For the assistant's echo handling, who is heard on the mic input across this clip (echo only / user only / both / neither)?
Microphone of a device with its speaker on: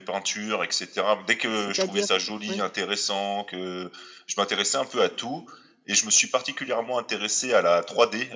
both